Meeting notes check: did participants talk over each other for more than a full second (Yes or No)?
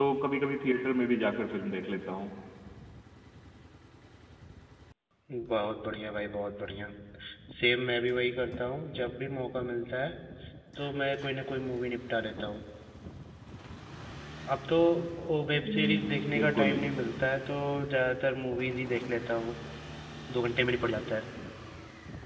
Yes